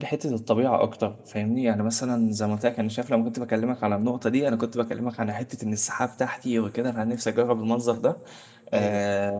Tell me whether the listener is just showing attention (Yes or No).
Yes